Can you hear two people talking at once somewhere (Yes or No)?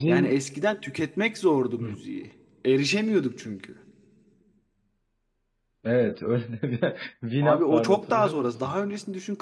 Yes